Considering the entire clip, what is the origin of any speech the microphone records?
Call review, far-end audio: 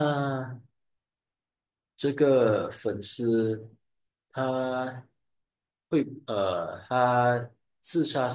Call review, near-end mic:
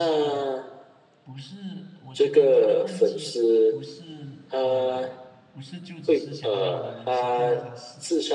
both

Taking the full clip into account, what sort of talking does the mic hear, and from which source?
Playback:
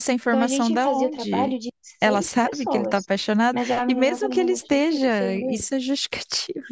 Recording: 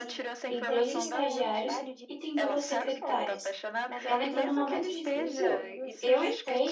both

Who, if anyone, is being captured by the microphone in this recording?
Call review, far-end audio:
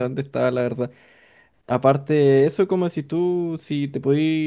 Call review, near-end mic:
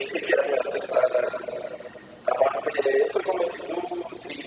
echo only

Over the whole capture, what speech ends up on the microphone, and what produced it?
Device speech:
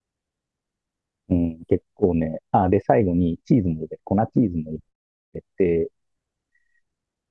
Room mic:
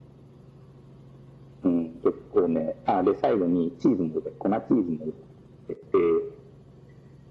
echo only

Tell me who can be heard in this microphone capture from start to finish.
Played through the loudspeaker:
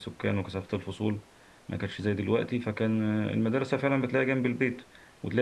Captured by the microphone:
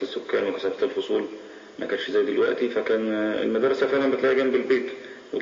echo only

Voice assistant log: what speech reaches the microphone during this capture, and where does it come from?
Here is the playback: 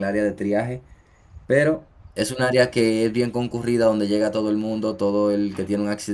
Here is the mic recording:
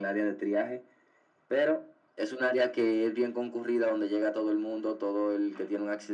echo only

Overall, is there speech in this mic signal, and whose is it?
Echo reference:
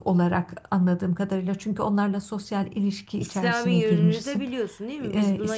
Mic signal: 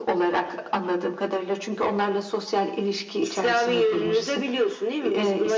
echo only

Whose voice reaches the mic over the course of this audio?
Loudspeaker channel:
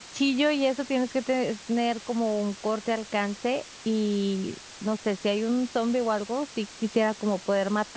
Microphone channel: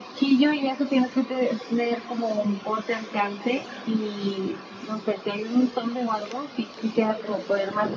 echo only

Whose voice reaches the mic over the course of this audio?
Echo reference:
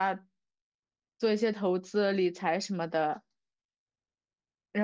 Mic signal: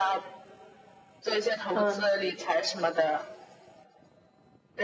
both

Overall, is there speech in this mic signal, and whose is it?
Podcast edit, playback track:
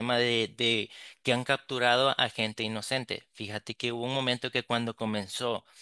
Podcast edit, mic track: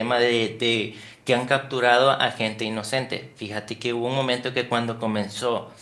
echo only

